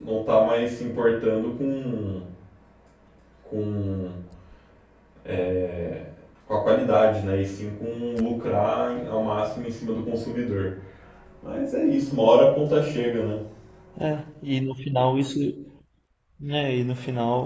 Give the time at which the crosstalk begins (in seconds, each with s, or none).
none